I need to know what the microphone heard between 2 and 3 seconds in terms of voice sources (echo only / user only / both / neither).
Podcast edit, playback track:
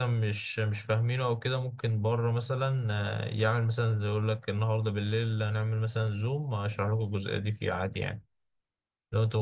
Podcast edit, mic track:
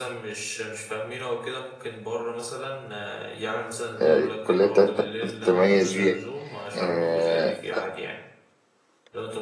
echo only